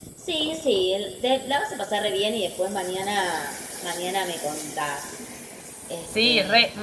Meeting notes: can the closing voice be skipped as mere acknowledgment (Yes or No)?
No